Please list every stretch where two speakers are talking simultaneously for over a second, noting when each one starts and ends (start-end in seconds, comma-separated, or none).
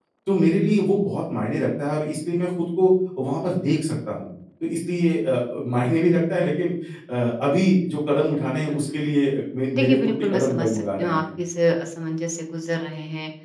9.7-11.2